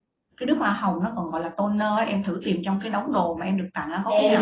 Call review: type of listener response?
taking over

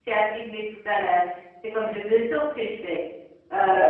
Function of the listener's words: listening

